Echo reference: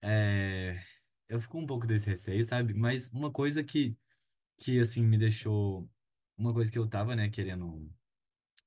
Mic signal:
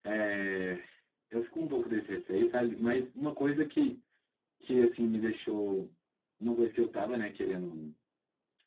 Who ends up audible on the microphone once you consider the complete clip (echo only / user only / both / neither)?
echo only